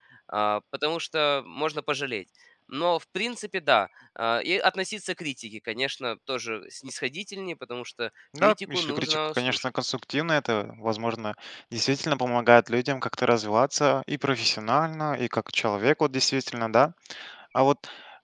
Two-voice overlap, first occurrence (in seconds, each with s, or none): 8.3 s